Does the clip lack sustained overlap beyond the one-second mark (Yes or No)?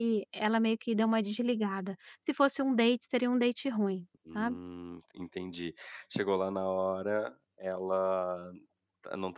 Yes